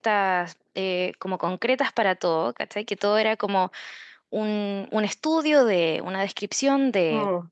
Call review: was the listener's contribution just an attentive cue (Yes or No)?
Yes